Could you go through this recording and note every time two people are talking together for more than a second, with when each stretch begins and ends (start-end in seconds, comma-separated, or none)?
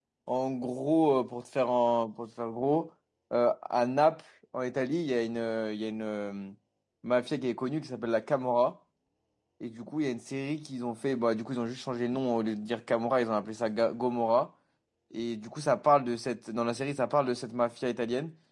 none